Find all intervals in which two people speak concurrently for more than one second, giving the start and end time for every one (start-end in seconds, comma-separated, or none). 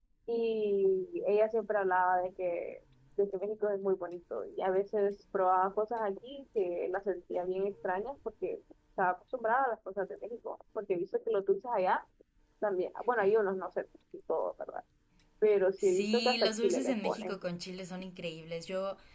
15.8-17.4